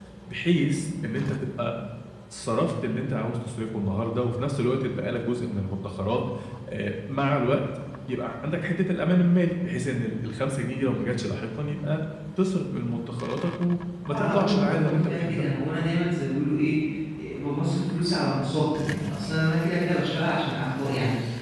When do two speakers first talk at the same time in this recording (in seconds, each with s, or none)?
14.1 s